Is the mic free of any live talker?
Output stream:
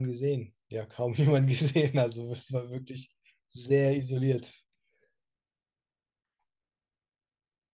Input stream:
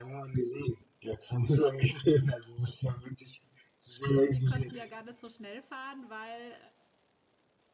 No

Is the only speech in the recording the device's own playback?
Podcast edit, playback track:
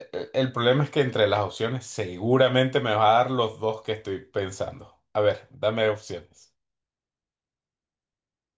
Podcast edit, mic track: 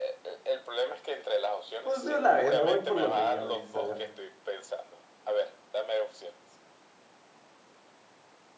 No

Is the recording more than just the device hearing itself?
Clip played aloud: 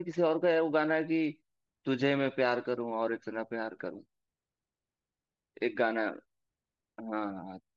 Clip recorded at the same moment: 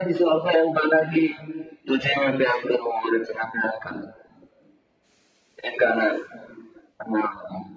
No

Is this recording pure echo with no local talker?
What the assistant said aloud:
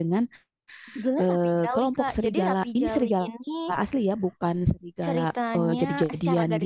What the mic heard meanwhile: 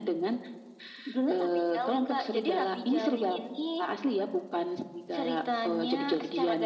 Yes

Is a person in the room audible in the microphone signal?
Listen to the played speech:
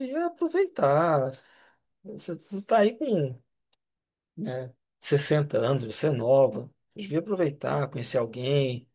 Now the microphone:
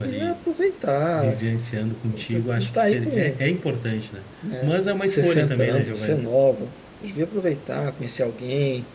Yes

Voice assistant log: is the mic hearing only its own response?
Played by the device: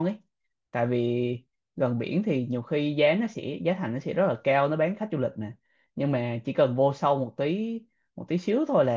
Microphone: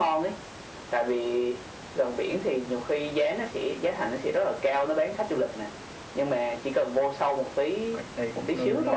No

